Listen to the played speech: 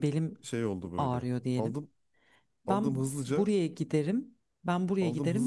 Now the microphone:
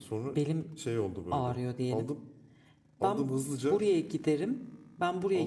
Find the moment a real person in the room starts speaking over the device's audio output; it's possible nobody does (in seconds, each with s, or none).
none